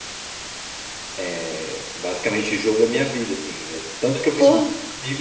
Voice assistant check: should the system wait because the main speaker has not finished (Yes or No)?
Yes